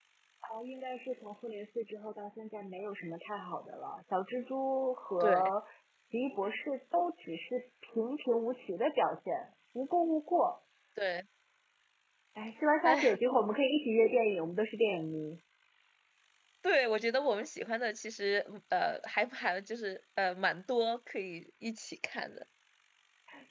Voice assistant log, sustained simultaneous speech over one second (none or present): none